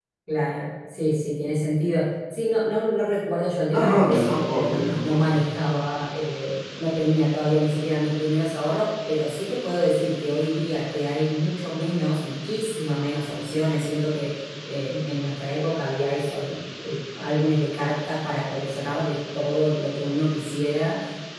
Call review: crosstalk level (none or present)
present